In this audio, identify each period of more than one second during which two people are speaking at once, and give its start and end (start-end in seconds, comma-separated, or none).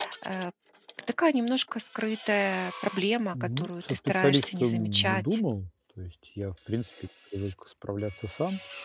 3.3-5.4